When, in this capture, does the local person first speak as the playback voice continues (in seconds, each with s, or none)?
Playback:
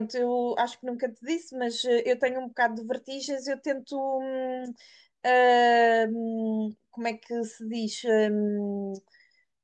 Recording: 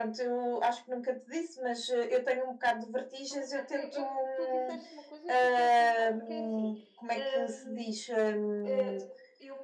3.3 s